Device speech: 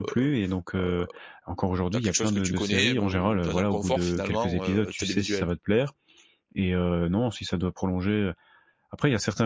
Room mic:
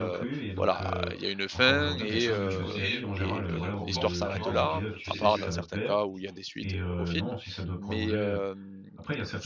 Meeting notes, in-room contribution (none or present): present